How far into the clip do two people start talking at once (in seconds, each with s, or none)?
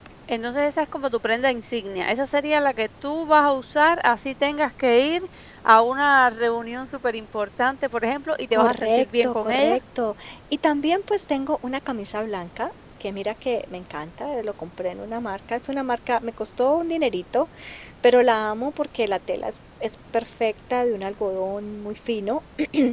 8.5 s